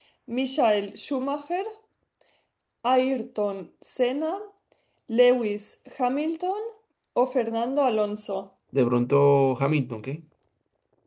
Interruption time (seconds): none

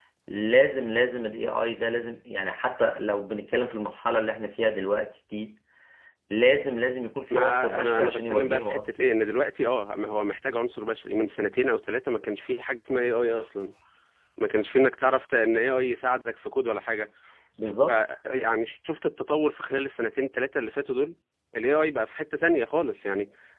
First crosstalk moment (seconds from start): 7.3 s

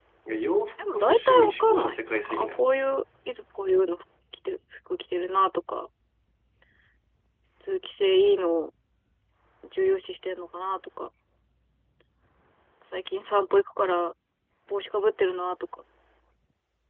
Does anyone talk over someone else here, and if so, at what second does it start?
0.8 s

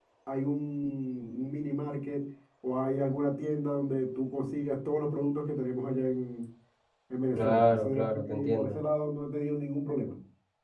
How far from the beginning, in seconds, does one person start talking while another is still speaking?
7.3 s

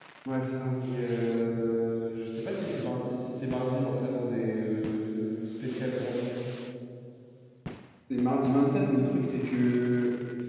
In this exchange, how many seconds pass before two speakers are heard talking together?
none

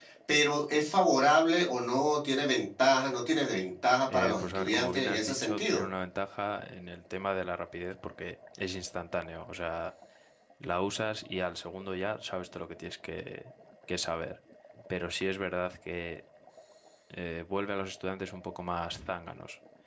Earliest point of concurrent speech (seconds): 4.1 s

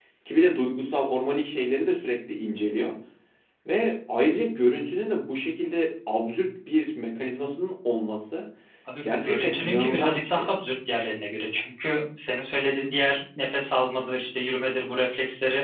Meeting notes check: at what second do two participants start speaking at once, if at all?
9.0 s

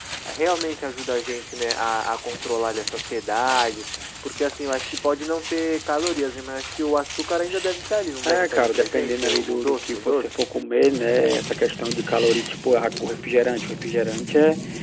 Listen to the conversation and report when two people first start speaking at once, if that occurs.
8.2 s

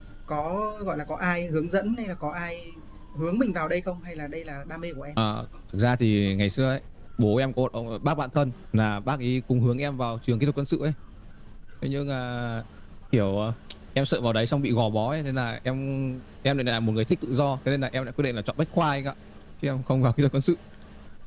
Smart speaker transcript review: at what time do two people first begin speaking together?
none

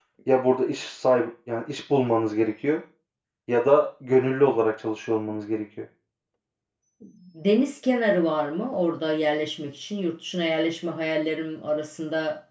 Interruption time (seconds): none

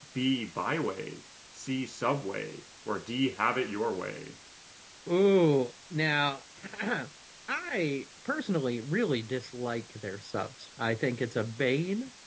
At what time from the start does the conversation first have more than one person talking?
none

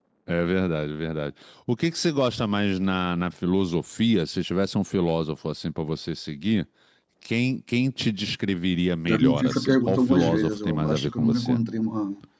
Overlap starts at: 9.1 s

